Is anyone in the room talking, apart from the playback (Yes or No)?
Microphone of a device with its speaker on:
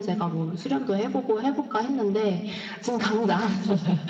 No